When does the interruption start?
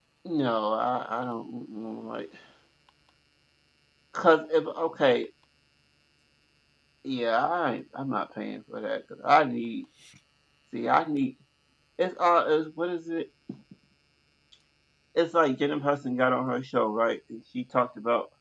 none

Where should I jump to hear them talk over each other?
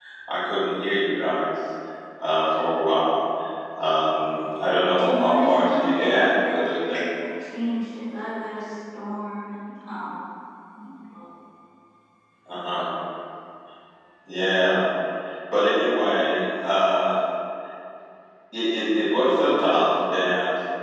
5.0 s

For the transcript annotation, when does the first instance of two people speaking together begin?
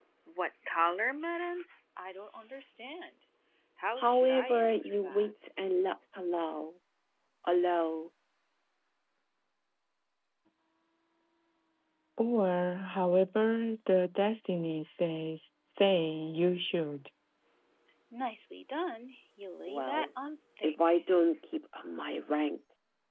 4.0 s

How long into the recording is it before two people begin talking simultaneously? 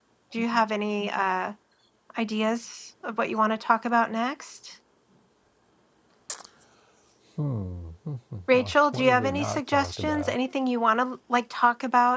8.5 s

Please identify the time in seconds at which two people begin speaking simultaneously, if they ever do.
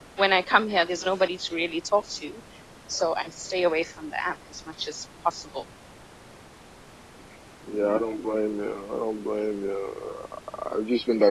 none

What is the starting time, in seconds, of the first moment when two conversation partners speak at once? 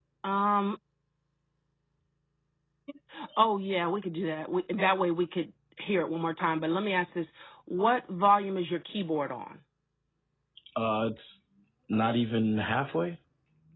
none

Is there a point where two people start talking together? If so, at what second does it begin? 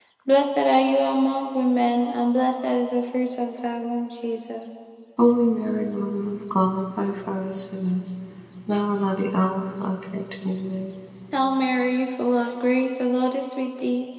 none

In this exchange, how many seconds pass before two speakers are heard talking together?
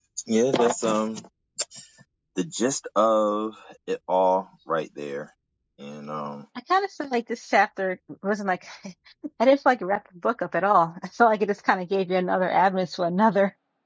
none

